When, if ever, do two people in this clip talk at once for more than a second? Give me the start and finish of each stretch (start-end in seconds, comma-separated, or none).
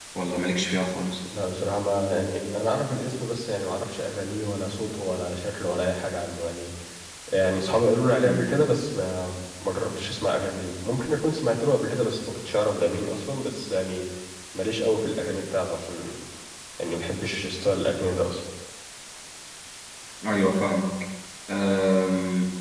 none